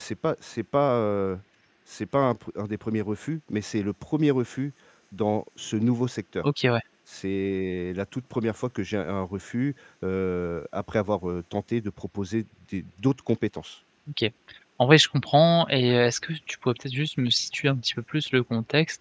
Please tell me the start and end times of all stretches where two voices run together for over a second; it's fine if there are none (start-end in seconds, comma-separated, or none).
none